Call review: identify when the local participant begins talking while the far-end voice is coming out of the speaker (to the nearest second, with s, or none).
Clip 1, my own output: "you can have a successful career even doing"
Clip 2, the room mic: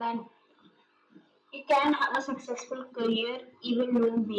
none